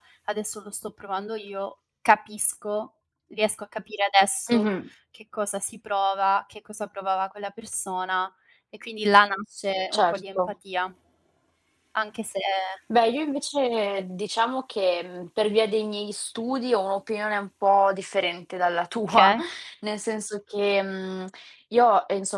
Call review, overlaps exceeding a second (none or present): none